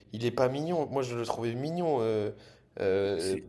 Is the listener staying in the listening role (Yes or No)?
No